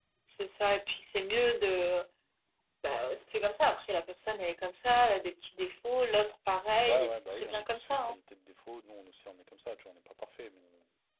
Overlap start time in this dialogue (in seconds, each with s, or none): 6.8 s